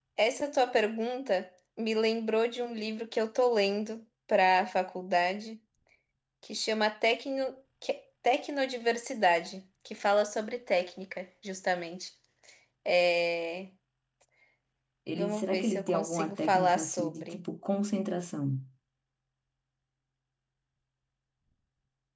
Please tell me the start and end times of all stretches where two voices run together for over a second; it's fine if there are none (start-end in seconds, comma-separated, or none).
15.2-17.4